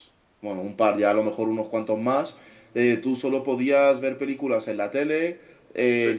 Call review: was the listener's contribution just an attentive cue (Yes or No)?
Yes